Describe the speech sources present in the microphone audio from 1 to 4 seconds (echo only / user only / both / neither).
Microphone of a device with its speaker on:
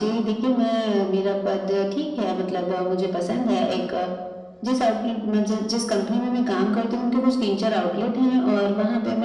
echo only